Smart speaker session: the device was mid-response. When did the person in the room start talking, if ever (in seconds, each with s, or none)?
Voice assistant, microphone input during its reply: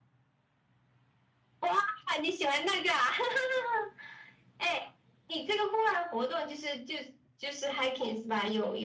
none